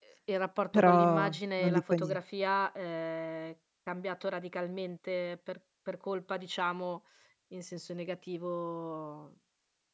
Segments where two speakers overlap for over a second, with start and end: 0.7-2.2

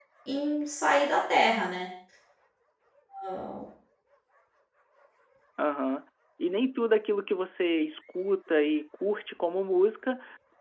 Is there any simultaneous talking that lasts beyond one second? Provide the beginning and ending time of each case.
none

